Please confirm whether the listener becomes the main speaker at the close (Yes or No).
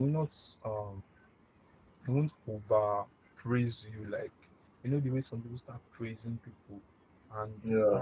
No